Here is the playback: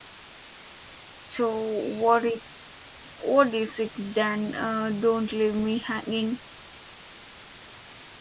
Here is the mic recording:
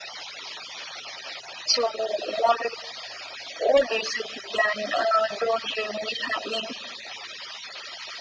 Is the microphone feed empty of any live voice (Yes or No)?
Yes